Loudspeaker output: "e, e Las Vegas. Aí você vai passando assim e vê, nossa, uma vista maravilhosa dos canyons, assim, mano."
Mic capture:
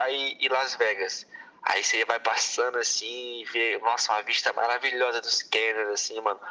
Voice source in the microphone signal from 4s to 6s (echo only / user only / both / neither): echo only